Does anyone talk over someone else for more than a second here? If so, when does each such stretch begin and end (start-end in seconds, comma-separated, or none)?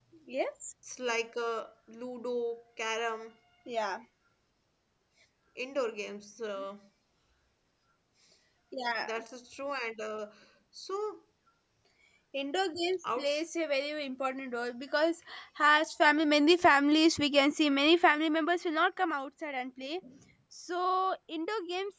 none